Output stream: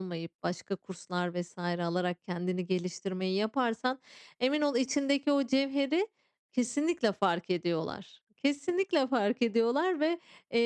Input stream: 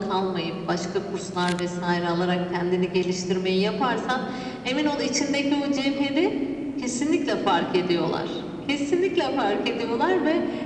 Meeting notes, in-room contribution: none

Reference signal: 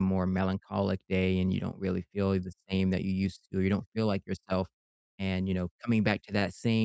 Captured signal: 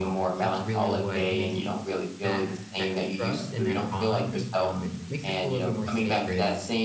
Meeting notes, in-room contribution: present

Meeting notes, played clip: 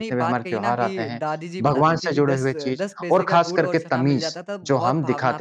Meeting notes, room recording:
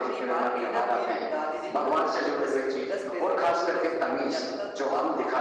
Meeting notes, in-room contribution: none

